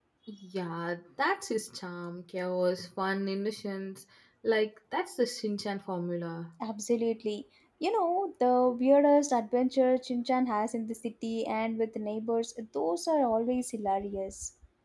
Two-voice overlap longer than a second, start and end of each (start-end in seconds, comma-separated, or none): none